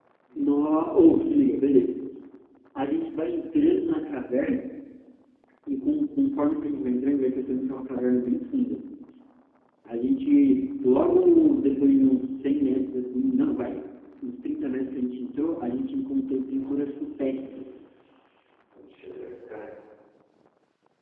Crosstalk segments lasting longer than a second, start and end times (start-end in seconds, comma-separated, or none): 16.5-17.9